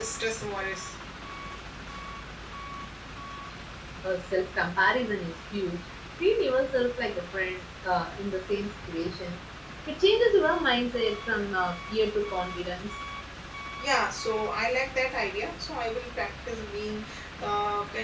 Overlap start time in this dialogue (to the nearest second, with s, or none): none